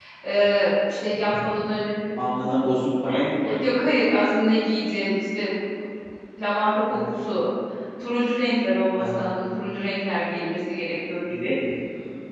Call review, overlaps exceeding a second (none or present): none